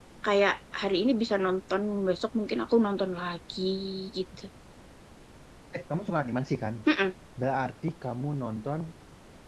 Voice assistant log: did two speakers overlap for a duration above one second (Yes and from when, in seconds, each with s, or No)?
No